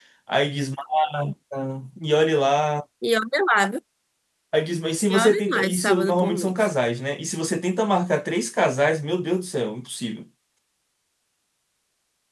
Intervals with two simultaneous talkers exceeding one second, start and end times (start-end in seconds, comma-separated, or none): 5.1-6.7